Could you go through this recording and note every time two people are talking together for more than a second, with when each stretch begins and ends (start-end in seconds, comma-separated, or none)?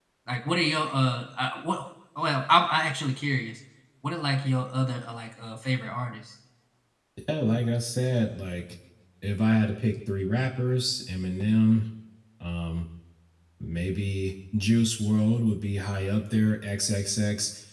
none